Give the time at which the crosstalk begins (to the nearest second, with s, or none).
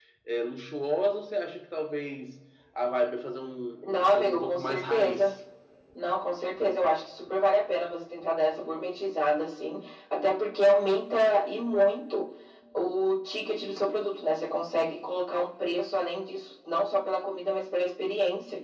4 s